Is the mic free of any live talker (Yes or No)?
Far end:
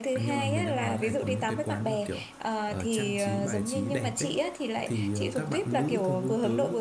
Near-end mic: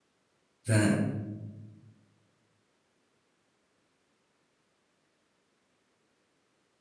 No